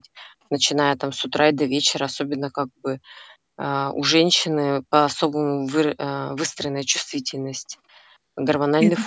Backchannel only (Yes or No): Yes